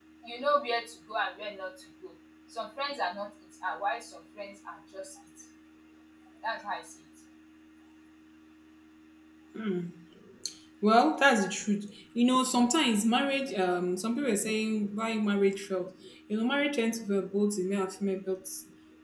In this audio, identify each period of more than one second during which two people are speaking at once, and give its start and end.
none

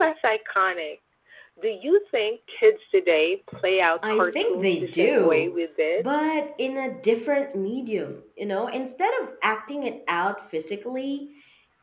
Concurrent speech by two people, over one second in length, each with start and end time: 4.1-5.6

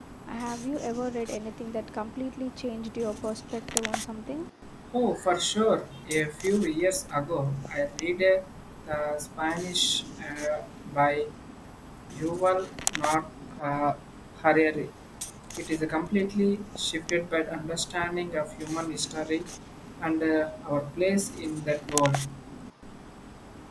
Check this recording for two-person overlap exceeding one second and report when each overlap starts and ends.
none

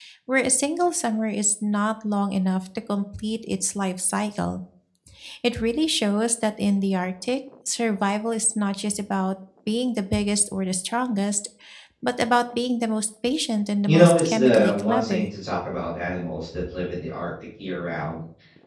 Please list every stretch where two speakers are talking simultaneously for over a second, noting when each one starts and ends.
13.9-15.3

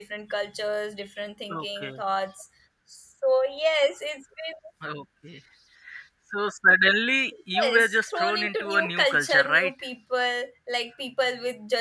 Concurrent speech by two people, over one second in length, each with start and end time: 7.6-9.7

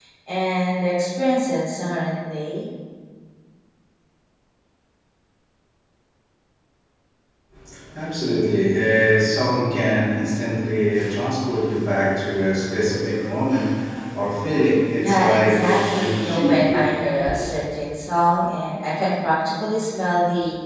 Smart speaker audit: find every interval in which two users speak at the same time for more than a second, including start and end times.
15.0-16.8

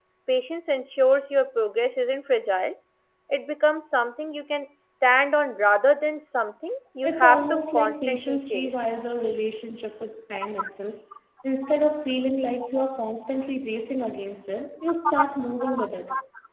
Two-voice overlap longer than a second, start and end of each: 7.0-8.7

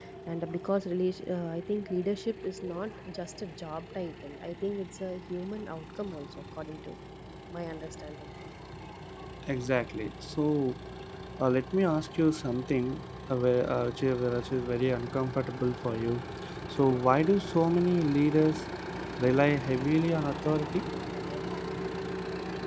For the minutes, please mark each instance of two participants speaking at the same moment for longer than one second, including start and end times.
none

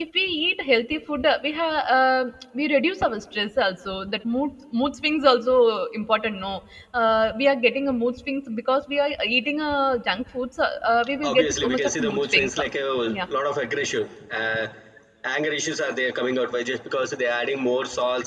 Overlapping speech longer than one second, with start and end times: 11.2-12.7

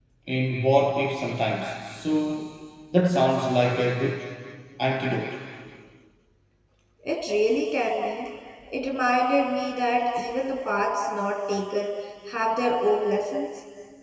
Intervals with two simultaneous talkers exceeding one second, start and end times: none

